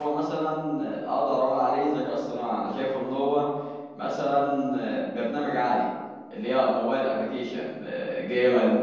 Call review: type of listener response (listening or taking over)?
listening